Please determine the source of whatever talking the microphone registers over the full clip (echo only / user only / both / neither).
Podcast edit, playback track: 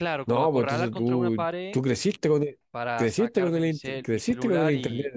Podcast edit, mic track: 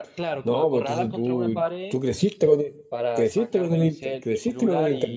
echo only